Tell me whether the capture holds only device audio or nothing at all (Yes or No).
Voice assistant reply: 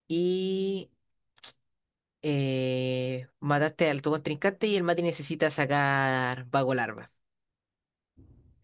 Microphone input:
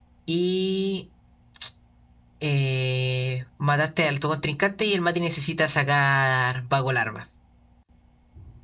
Yes